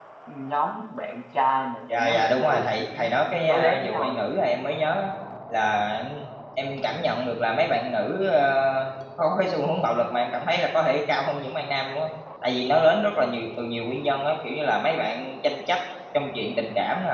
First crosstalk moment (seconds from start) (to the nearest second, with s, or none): 2 s